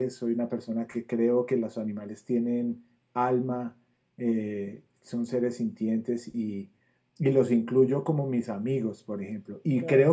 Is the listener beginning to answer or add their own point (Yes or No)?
No